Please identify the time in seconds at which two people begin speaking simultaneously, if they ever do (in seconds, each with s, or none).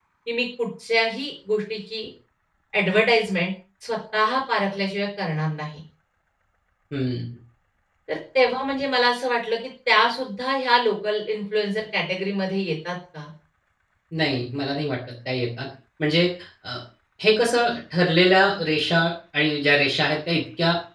none